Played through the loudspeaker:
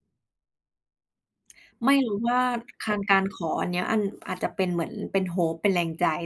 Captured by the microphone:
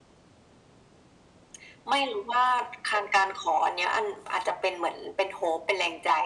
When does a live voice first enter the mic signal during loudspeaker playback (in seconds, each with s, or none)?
none